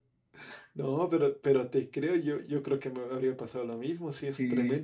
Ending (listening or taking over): listening